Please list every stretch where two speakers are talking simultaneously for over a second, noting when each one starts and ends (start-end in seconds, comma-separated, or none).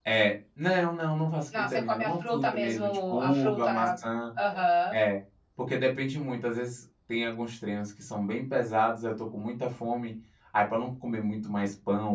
1.6-3.9